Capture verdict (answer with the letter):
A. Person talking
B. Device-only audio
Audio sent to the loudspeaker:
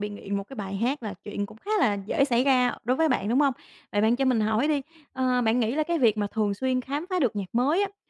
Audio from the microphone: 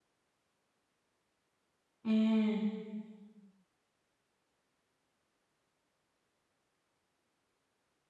A